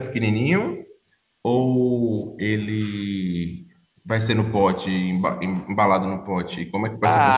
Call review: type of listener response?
taking over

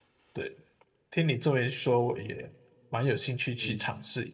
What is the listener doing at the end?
taking over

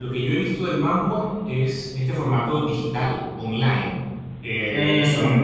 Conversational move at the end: listening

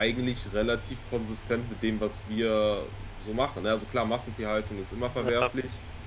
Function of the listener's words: listening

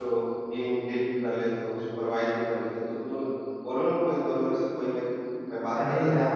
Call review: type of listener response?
taking over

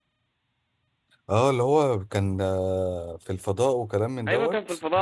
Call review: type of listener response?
taking over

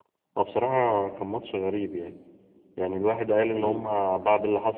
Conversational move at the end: listening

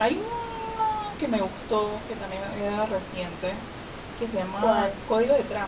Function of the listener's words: listening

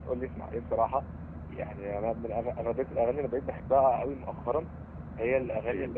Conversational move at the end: listening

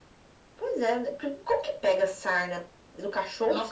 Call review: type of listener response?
taking over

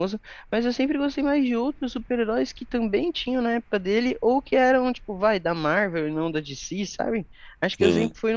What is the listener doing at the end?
listening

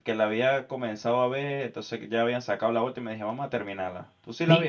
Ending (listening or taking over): taking over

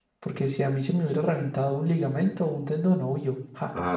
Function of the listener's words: taking over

